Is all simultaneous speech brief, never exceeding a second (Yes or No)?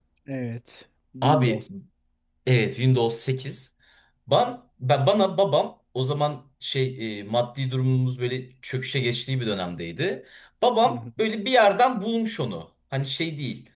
Yes